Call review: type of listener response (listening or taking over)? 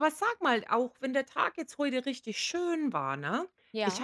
listening